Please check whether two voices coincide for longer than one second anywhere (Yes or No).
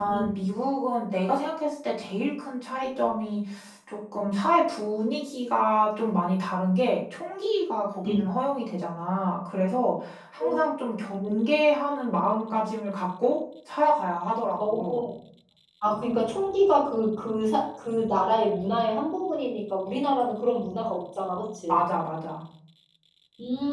No